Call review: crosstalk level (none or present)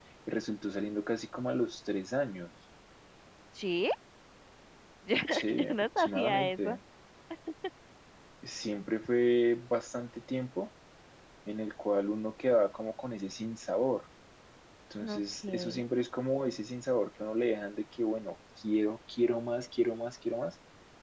present